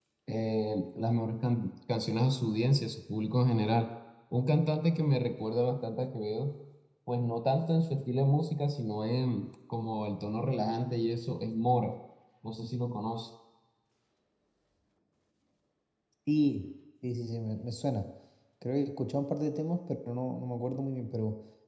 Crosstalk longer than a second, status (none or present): none